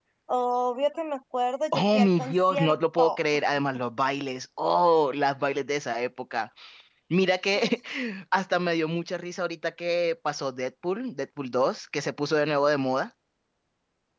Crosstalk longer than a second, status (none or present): present